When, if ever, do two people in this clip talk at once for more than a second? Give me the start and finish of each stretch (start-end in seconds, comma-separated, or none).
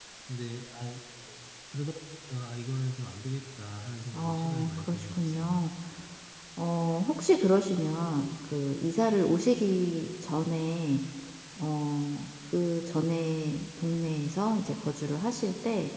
4.1-5.6